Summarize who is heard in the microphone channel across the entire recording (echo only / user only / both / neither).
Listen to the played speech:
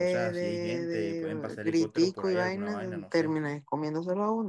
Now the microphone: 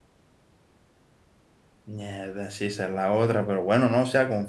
user only